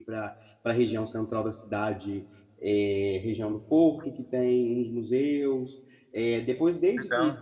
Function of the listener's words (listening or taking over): listening